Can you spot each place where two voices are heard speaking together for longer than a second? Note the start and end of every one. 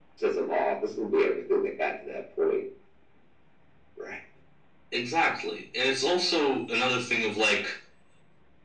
none

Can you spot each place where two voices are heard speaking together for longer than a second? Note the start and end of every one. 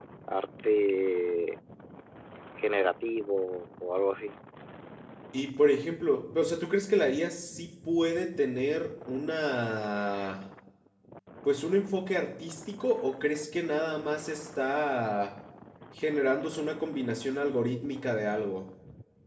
none

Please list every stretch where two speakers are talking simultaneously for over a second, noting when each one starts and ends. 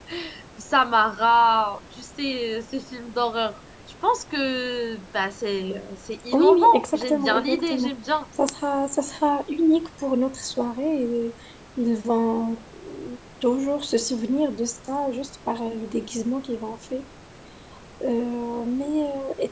6.3-7.9

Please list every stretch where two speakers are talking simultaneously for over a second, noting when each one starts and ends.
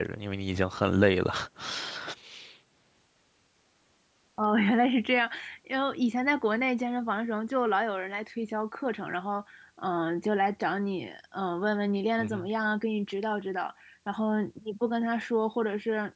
none

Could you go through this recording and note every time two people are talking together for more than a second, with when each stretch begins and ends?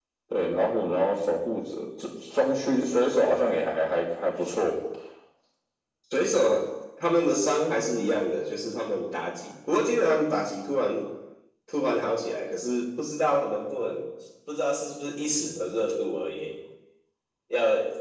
none

